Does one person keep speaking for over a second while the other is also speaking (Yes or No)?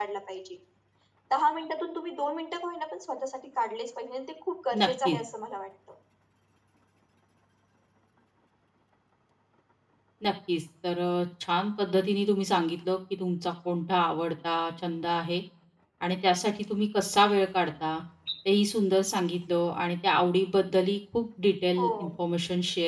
No